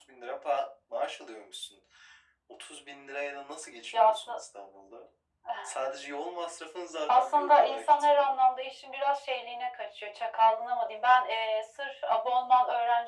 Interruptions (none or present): present